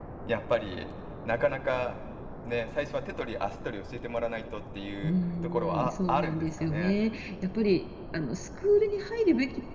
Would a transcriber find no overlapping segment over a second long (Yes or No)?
No